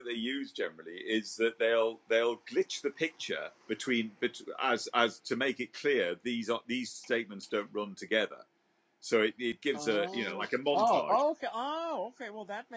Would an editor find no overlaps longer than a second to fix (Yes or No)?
No